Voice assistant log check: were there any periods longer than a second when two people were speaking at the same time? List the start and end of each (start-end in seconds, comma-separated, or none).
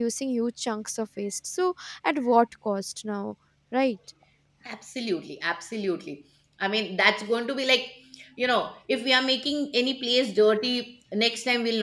none